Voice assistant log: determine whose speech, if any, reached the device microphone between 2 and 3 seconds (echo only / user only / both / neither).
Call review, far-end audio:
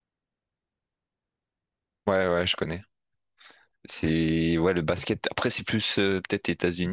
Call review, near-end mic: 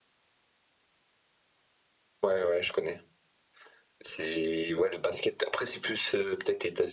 echo only